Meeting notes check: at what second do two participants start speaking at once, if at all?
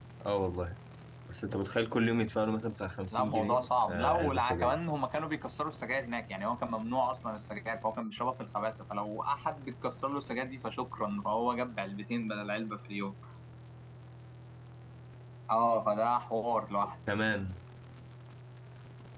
3.1 s

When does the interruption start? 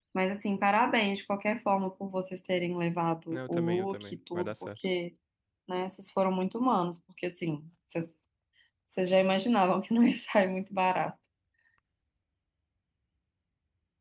3.3 s

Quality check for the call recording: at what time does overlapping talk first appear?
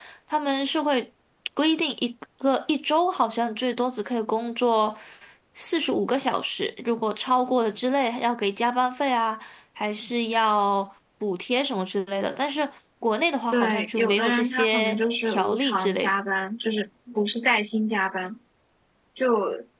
13.5 s

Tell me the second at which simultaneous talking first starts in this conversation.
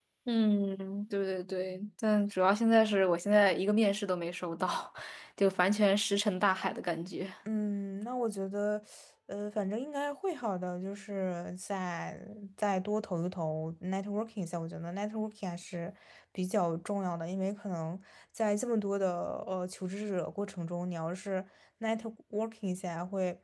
none

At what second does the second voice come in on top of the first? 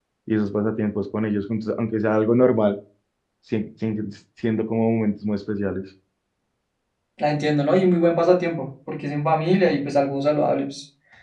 none

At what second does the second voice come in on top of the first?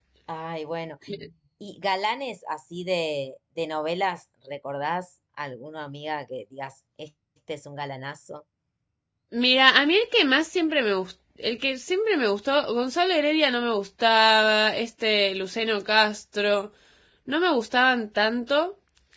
none

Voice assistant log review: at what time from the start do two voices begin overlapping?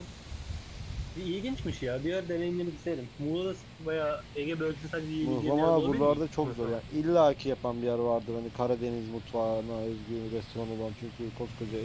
5.2 s

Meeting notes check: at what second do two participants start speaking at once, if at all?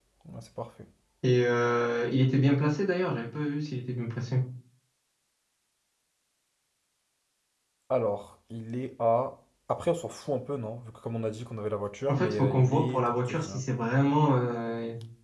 12.1 s

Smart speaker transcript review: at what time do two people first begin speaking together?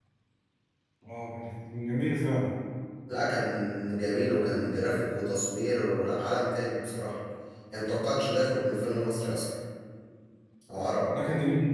none

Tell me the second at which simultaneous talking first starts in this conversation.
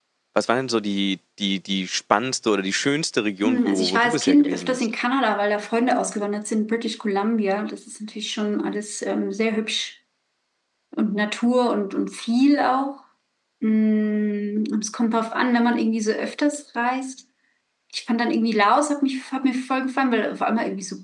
3.4 s

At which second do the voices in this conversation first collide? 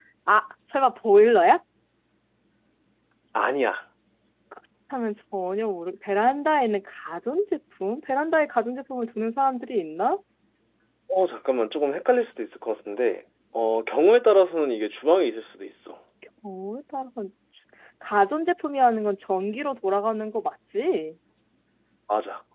none

